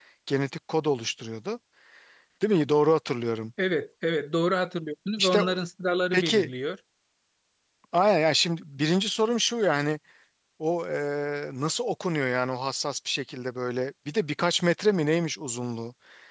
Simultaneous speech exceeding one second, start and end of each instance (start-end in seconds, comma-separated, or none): none